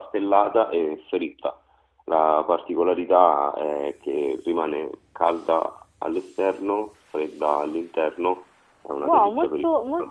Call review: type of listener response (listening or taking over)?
taking over